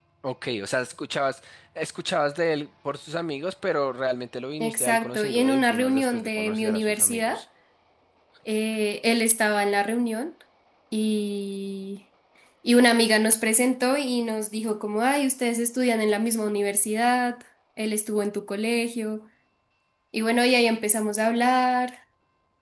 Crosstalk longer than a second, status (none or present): present